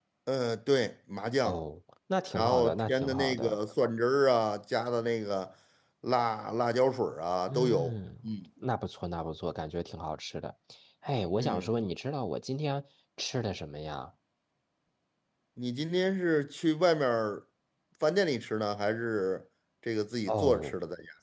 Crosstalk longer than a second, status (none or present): present